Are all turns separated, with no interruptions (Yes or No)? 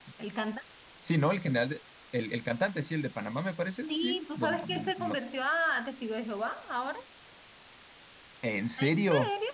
No